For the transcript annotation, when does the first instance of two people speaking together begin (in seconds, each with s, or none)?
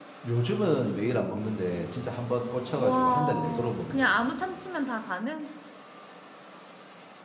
2.8 s